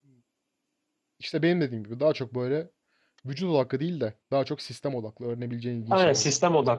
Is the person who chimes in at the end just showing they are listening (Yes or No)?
No